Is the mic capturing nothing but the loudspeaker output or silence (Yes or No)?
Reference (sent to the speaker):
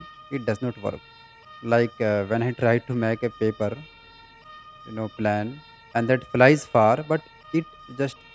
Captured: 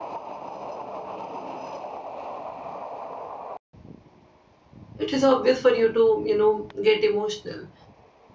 No